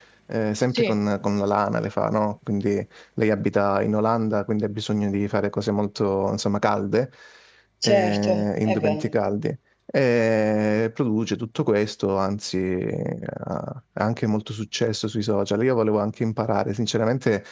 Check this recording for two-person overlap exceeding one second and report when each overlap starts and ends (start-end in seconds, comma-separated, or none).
7.8-9.1